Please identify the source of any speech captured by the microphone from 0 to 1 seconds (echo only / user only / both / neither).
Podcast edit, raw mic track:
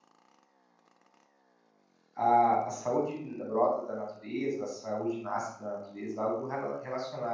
neither